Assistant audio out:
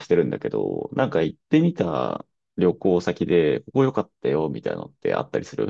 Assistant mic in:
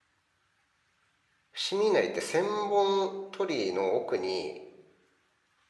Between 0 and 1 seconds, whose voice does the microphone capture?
neither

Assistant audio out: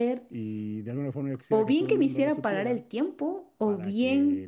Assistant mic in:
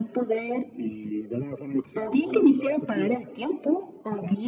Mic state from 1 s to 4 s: echo only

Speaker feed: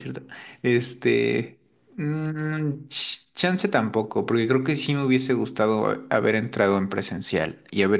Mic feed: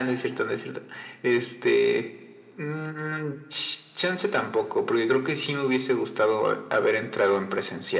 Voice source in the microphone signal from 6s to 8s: echo only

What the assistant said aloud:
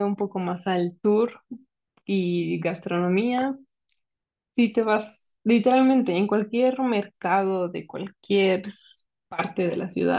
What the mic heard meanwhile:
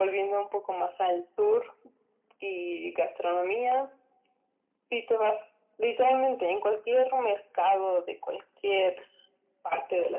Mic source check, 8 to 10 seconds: echo only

